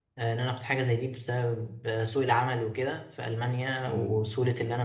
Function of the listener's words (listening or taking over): listening